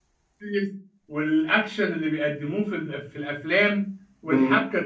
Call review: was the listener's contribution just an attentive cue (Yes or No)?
Yes